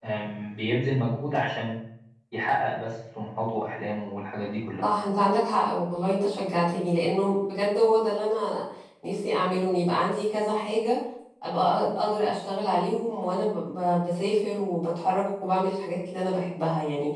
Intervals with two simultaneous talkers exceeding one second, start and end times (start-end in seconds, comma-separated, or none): none